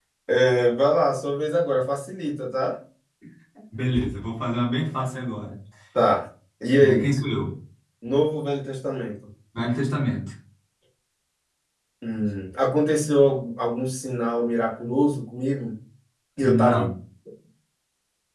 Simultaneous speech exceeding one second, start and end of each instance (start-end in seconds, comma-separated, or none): none